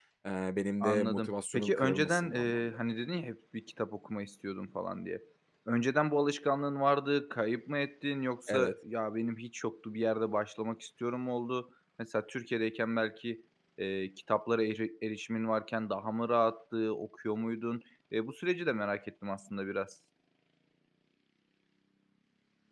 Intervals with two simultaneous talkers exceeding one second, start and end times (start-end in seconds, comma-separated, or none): 0.8-2.8